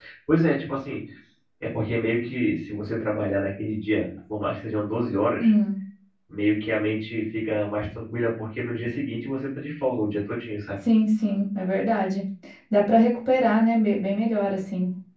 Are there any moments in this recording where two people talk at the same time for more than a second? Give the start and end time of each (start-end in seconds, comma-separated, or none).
none